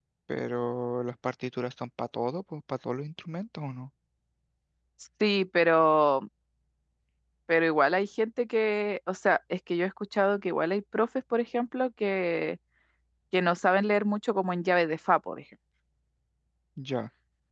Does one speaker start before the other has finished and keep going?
No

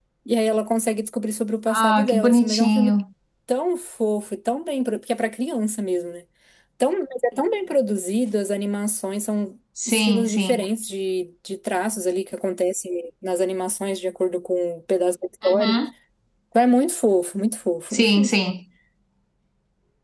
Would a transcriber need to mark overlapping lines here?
Yes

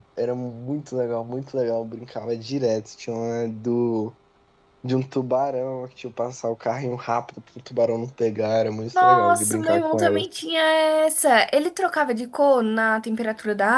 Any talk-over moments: Yes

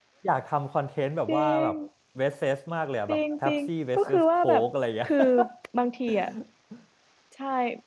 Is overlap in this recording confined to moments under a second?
No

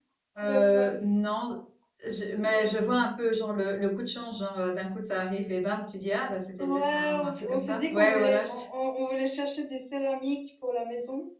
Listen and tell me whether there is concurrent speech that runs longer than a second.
Yes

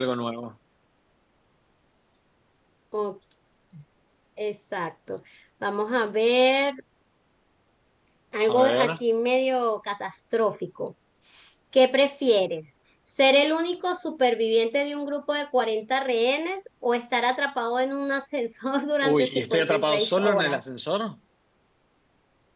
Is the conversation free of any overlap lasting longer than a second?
No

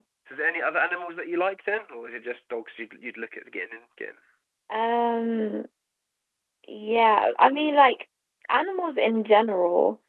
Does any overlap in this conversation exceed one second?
No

